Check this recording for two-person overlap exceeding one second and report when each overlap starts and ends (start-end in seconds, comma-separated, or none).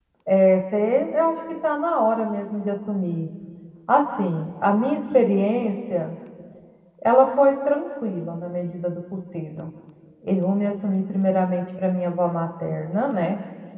none